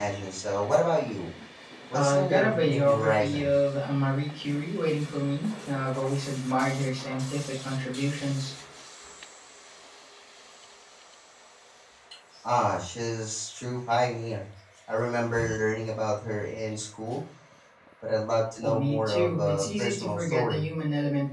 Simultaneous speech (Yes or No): Yes